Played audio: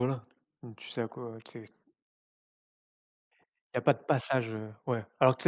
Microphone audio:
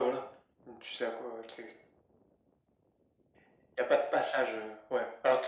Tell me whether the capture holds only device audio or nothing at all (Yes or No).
Yes